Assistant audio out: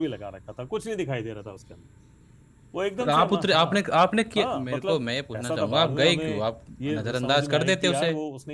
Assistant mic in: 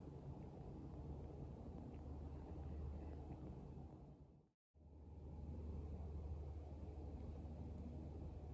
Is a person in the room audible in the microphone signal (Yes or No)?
No